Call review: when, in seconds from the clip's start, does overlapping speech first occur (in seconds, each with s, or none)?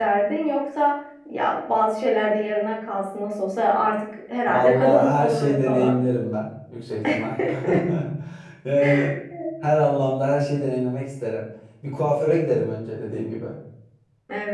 4.5 s